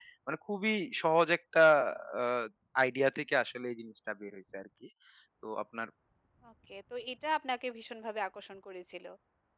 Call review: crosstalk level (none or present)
none